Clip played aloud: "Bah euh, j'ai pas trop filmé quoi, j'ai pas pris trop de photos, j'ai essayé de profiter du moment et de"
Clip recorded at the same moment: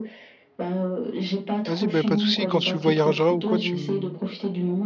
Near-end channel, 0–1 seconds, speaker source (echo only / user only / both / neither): echo only